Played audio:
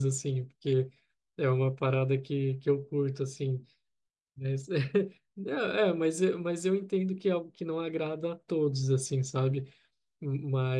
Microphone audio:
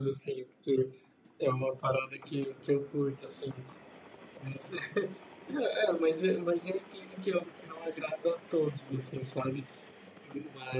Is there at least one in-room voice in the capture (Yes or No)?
No